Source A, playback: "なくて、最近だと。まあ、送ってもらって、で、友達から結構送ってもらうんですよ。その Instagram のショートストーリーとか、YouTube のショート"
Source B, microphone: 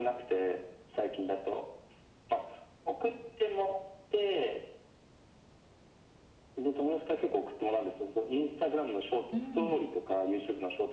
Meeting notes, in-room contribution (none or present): present